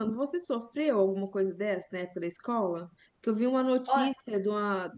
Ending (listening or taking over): listening